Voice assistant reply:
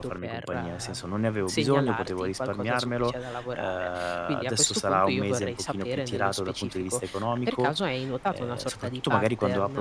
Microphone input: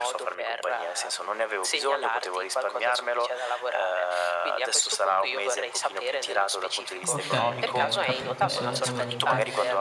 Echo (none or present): present